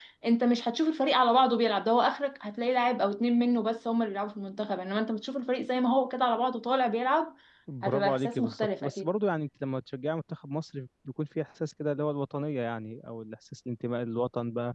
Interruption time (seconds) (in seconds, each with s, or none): 7.8 s